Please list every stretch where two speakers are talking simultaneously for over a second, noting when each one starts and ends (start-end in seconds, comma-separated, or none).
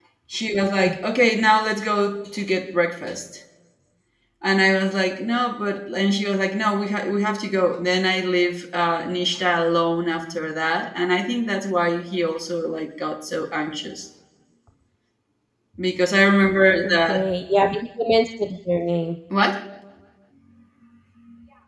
none